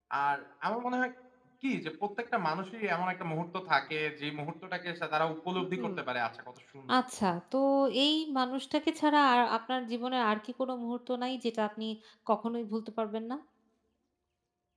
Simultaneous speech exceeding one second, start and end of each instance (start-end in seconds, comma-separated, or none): none